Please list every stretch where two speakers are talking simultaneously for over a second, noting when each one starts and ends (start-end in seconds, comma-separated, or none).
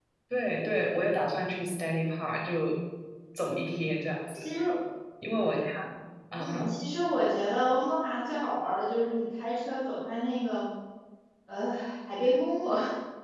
none